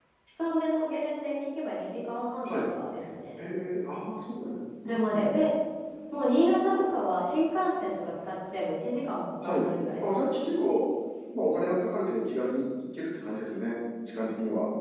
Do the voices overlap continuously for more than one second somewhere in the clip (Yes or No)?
No